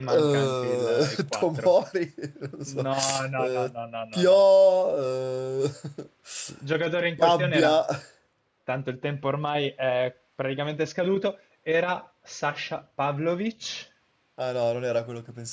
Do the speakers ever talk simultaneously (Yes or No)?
Yes